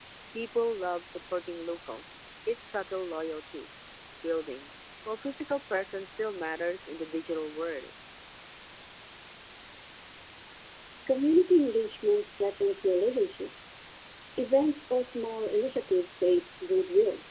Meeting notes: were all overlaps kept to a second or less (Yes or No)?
Yes